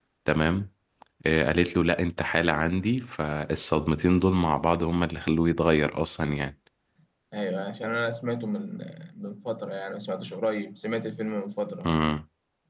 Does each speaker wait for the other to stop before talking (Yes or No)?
Yes